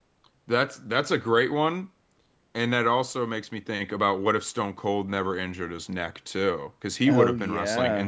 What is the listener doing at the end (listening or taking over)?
listening